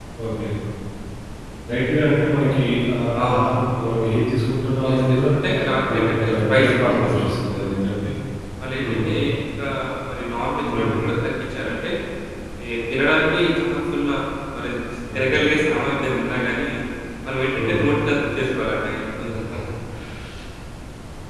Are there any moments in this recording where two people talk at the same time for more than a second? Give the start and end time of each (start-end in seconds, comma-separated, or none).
5.9-7.6